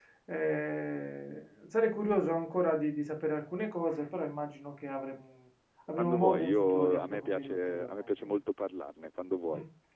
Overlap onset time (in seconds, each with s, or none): 6.0 s